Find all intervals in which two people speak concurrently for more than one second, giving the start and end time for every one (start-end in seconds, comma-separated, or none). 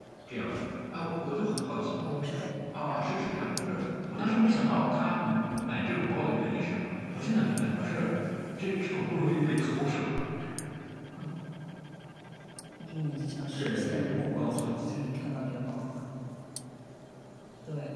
13.5-14.9